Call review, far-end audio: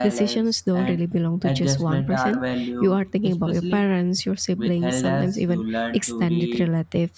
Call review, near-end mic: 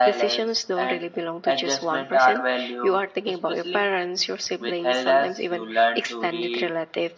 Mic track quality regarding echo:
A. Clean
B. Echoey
B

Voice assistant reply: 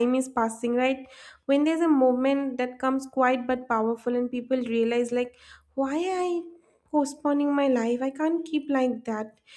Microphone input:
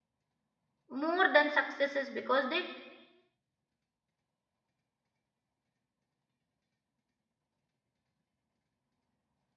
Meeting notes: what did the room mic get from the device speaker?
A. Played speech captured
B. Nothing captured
B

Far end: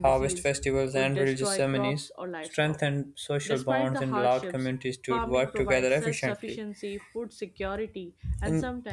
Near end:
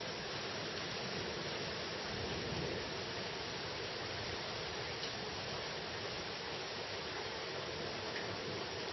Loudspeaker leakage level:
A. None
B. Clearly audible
A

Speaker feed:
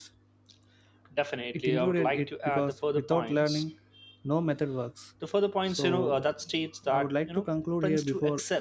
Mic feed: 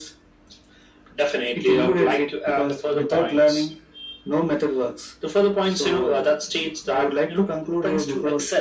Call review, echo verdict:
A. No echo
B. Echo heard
B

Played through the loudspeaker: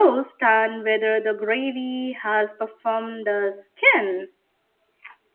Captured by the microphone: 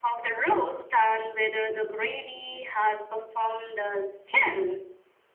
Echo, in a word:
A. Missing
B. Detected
B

